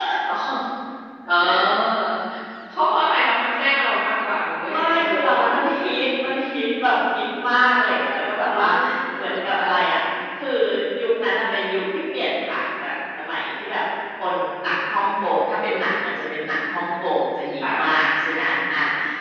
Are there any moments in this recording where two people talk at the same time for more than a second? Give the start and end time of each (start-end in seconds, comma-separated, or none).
4.7-6.1